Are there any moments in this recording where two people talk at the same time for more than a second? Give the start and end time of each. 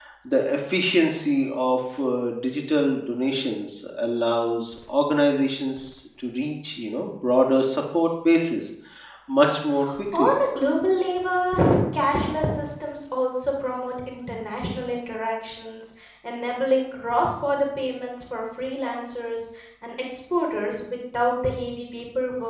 none

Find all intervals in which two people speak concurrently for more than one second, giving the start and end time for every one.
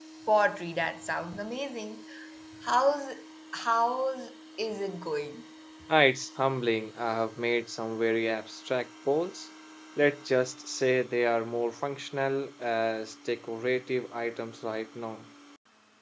none

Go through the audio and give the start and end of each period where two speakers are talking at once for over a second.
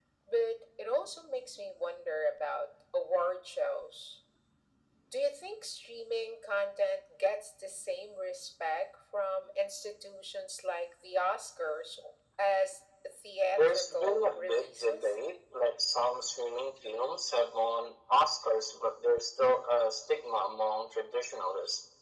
13.5-15.1

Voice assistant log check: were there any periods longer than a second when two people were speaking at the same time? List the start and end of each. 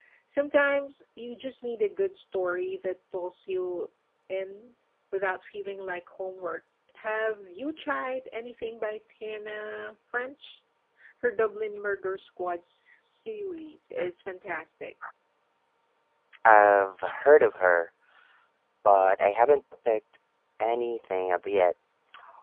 none

